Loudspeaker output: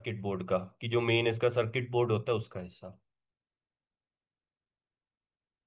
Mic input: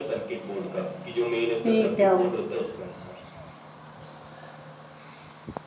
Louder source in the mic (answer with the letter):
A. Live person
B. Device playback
A